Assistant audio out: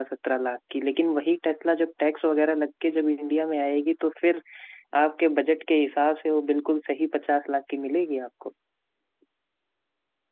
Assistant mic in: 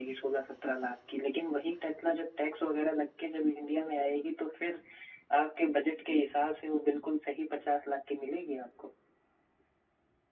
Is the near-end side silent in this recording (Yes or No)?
Yes